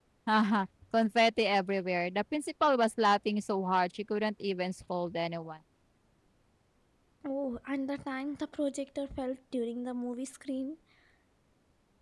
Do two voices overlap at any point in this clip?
No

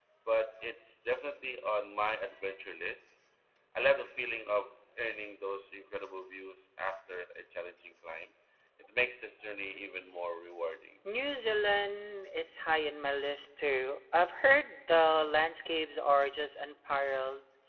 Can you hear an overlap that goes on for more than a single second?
No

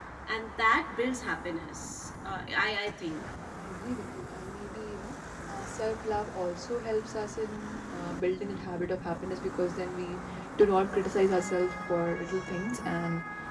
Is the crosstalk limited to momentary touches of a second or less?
Yes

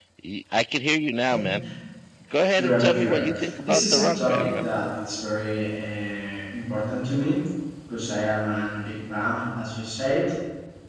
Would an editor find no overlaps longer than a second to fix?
No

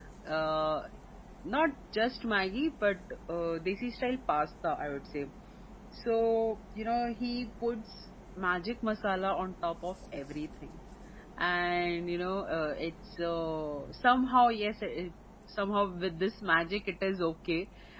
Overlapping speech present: No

